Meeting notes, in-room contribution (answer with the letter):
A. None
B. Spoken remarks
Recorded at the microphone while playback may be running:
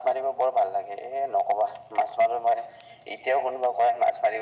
A